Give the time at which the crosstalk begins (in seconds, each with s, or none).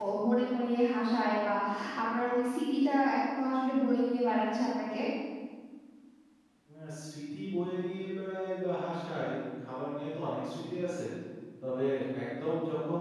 none